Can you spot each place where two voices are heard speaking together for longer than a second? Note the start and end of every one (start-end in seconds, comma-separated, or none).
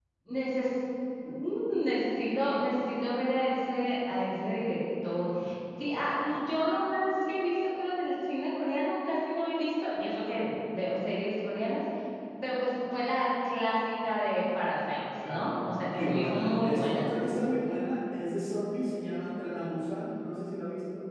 15.0-17.1